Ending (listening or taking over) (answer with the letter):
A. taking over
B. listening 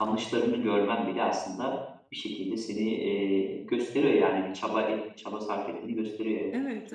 A